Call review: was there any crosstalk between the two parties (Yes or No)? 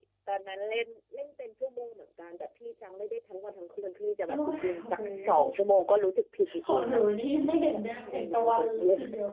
Yes